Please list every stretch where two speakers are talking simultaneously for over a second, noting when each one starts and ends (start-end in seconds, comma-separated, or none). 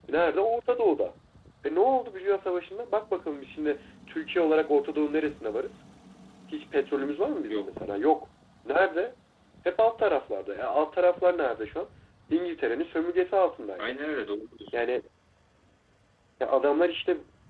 none